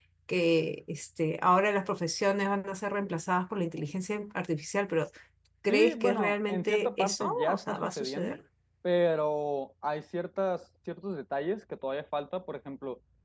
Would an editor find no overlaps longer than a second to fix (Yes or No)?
No